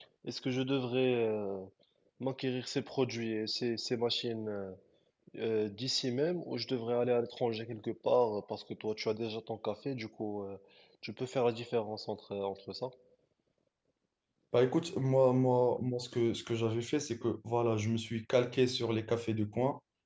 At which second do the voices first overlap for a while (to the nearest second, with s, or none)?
none